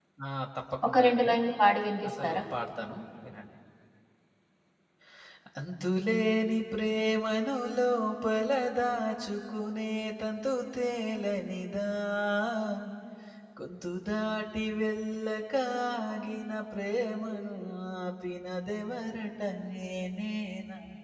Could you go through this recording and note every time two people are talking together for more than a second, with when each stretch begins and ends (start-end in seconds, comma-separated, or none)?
none